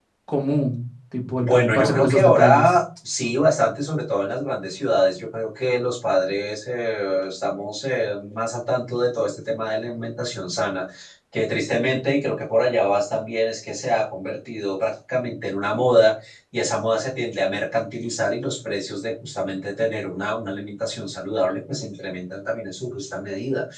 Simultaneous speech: Yes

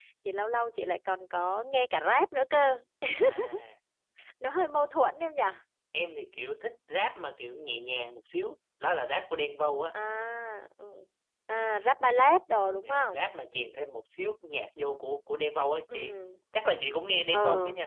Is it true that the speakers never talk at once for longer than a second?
Yes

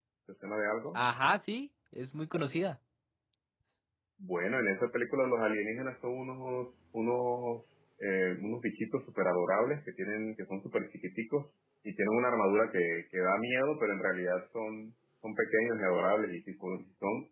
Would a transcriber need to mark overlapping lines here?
No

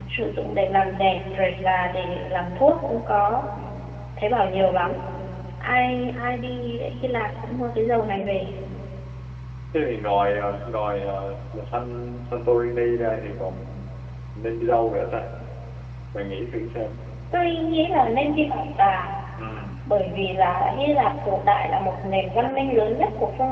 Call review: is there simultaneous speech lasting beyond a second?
No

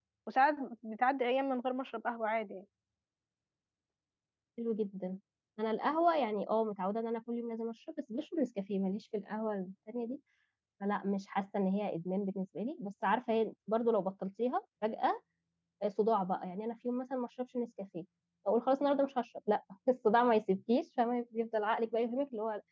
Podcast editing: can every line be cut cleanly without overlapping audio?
Yes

